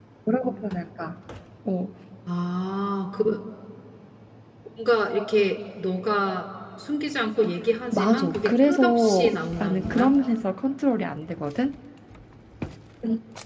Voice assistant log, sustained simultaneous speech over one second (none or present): present